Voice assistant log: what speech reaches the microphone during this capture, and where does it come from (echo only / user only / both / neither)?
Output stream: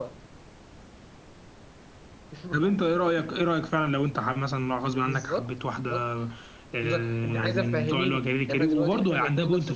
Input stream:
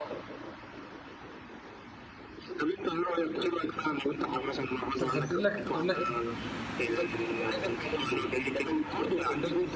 both